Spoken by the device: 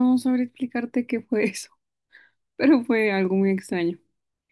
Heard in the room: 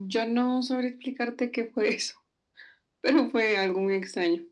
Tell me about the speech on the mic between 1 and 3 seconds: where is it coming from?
echo only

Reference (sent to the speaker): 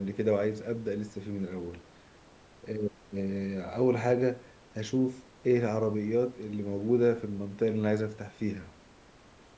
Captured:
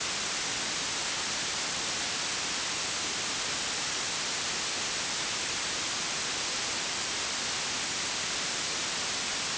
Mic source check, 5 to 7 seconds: neither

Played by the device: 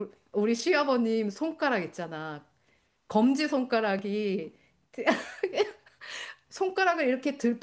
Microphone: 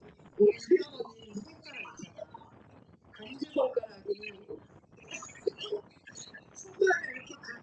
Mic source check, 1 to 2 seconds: echo only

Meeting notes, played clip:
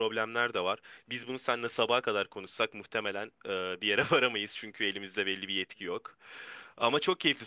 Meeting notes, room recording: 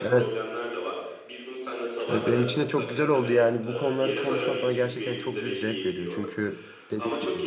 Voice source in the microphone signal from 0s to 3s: both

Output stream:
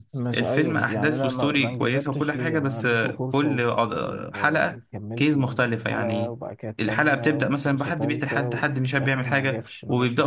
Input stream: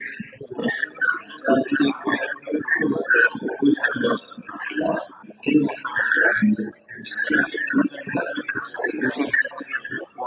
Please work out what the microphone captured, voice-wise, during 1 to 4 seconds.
echo only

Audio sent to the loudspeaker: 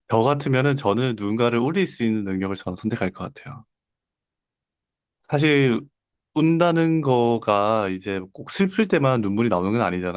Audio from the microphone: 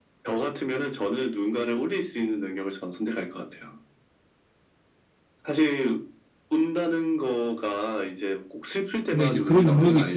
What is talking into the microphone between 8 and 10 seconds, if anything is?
both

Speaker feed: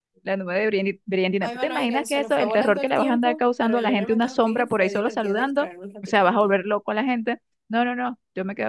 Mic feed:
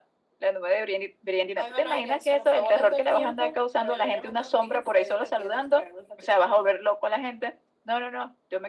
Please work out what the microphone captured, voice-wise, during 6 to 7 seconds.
echo only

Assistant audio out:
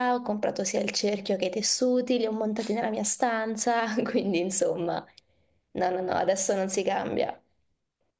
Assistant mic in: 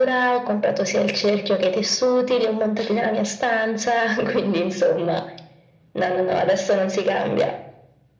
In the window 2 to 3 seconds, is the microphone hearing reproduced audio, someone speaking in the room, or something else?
echo only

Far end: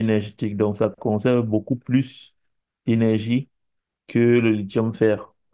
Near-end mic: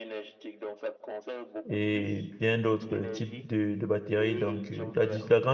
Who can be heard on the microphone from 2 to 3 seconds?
both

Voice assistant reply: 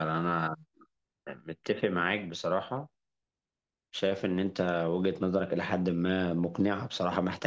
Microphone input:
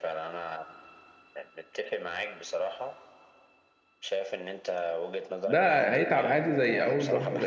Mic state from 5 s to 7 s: both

